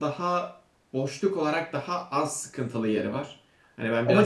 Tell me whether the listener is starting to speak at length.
Yes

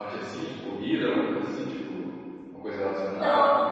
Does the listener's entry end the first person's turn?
Yes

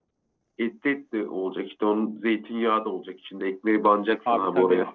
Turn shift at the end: Yes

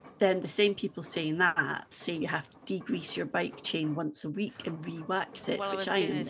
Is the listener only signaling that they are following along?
No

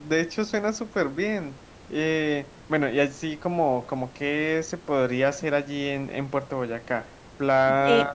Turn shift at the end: No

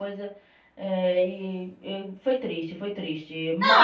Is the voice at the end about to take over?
Yes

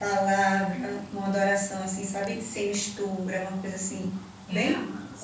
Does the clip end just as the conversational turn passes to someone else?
Yes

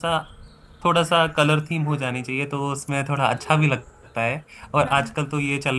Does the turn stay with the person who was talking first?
Yes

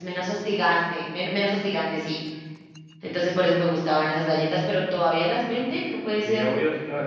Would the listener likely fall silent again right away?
No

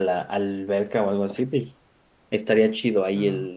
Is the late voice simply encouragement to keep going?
Yes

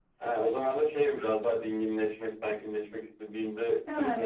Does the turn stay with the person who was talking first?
No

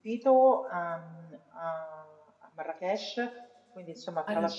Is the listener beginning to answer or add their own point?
No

